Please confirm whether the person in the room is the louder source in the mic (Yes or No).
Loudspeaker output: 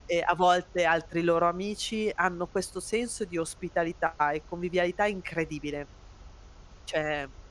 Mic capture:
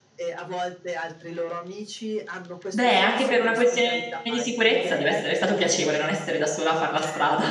Yes